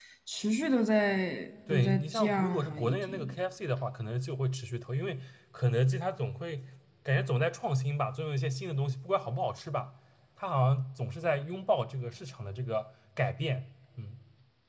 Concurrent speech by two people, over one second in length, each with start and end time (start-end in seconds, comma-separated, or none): 1.7-3.3